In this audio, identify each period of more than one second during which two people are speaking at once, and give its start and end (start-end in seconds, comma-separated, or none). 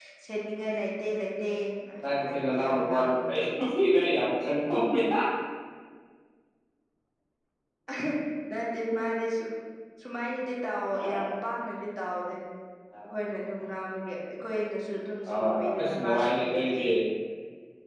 2.1-3.4, 15.3-16.8